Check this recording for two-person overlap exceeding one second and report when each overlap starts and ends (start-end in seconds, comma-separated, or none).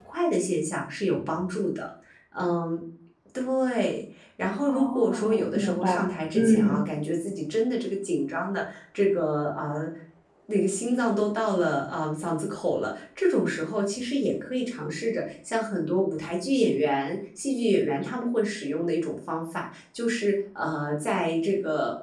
4.7-5.9